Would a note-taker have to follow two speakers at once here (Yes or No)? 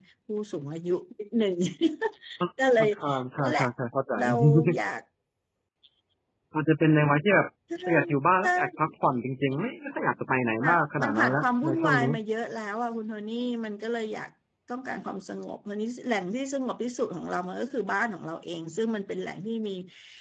Yes